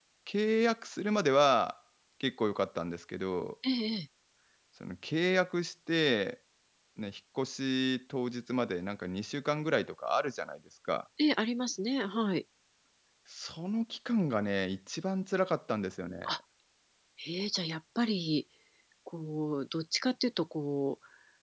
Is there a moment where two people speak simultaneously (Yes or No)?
No